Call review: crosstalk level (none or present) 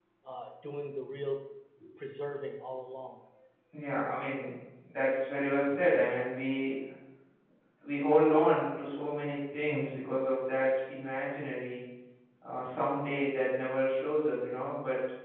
none